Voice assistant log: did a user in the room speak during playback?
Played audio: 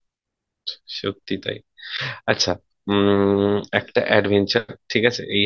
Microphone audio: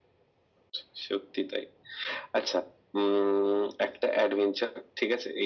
No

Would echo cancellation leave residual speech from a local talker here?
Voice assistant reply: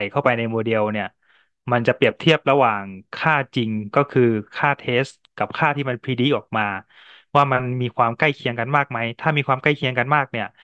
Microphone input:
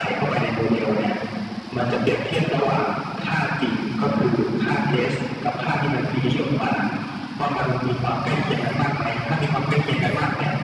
Yes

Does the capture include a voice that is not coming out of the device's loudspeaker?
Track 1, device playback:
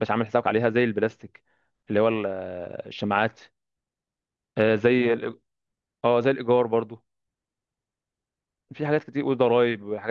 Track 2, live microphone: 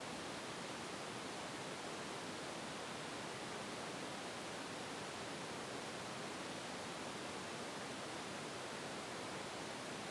No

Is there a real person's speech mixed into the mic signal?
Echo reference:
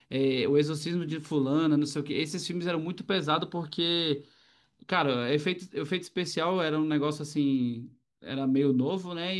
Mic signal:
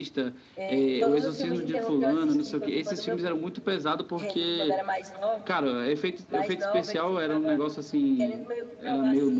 Yes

